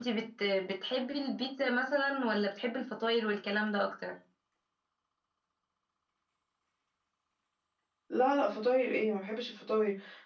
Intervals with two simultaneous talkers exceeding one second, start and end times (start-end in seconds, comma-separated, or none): none